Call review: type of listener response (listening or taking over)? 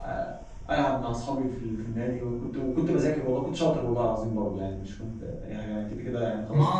taking over